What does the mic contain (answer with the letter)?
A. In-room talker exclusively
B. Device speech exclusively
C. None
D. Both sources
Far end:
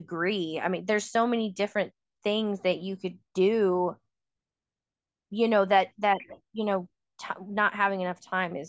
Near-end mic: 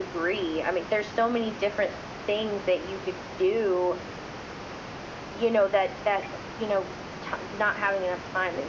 B